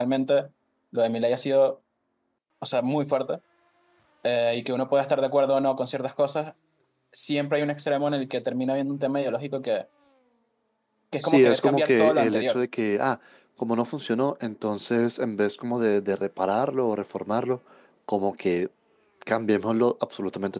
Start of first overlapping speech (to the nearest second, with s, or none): 11 s